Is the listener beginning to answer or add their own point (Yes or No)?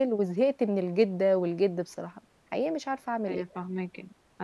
Yes